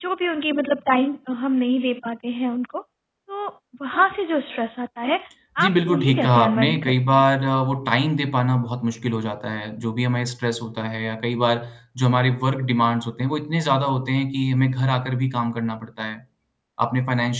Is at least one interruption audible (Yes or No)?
Yes